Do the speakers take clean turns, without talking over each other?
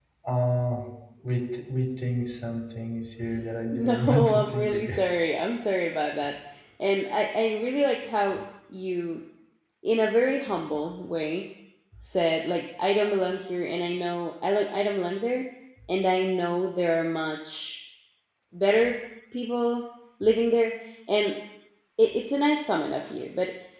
No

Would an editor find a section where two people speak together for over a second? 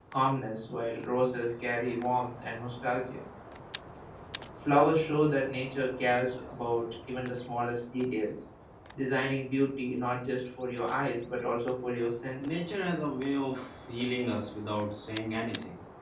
No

